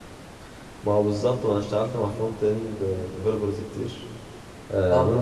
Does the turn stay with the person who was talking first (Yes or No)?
Yes